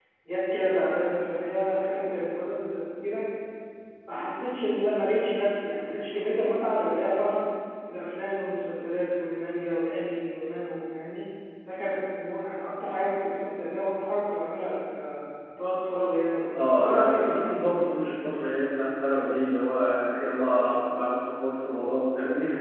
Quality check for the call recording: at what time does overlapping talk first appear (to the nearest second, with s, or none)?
17 s